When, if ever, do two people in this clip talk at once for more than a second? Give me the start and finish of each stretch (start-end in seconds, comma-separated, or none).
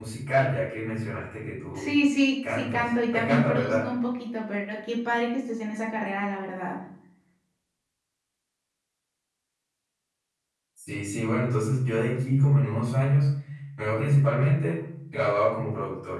2.4-3.9